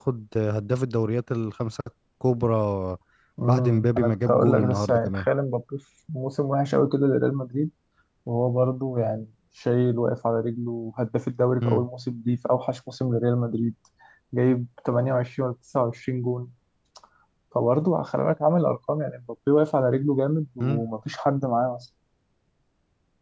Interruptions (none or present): present